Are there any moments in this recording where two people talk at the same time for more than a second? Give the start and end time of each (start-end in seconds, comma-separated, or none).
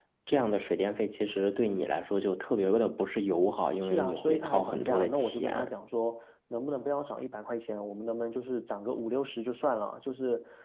3.8-5.7